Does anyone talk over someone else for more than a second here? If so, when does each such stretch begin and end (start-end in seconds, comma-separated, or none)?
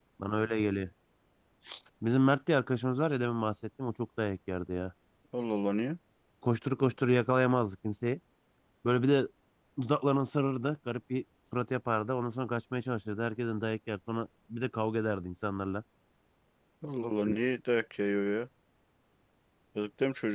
none